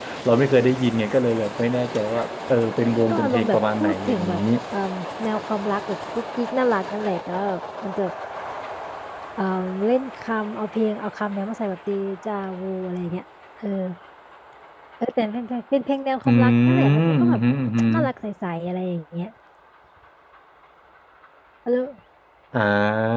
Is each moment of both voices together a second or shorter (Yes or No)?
No